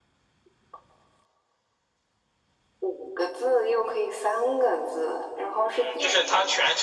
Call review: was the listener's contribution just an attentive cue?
No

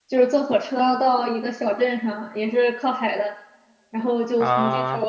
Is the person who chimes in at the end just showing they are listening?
Yes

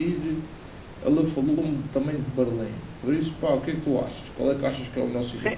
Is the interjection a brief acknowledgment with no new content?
No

